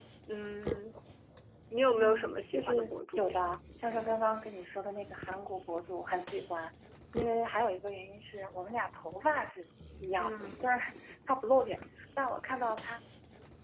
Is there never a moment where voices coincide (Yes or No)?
No